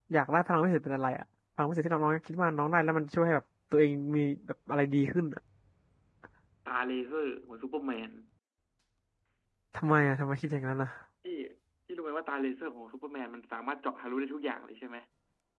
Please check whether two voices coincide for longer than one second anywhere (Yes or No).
No